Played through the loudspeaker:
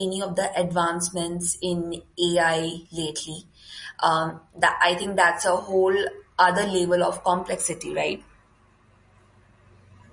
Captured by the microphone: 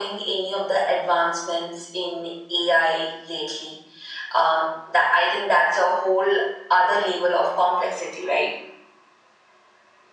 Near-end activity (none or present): none